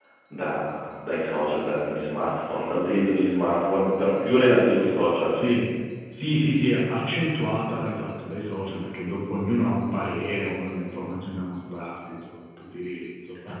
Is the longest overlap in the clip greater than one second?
No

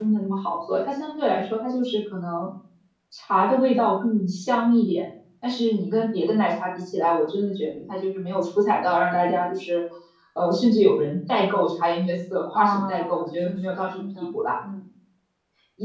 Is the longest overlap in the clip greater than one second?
Yes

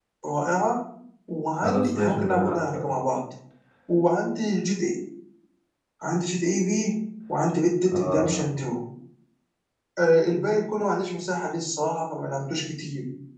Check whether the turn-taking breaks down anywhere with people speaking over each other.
Yes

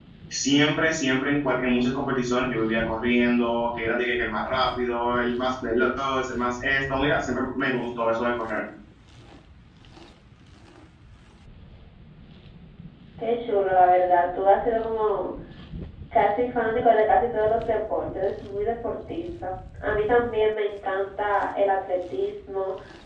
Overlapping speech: No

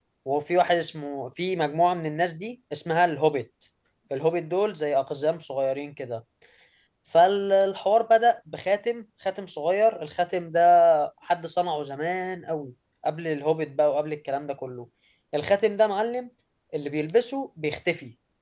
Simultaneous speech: No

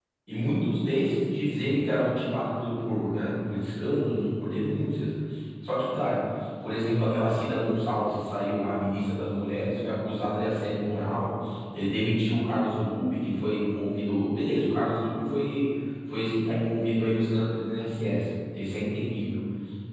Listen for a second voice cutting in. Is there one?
No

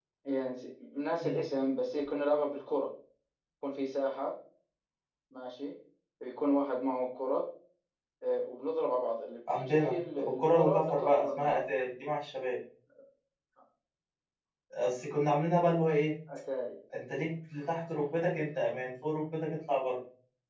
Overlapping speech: Yes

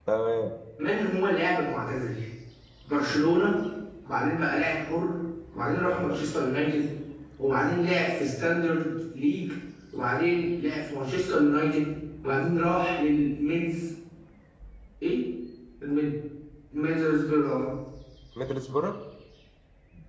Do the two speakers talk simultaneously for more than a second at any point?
No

